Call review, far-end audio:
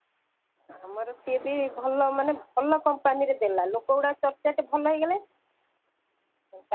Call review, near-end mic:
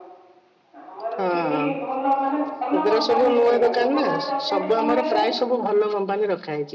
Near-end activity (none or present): present